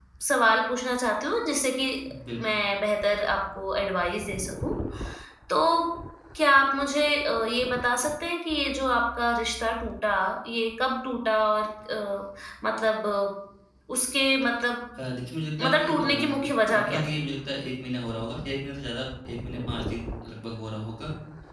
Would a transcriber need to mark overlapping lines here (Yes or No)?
Yes